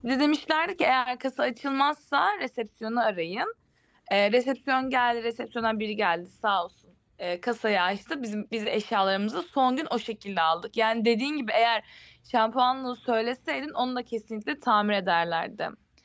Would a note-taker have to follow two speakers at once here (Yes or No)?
No